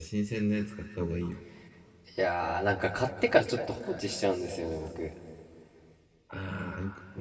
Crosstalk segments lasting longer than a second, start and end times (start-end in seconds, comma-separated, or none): none